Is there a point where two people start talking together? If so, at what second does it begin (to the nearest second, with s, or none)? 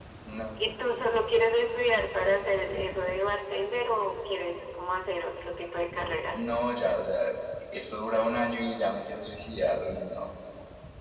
none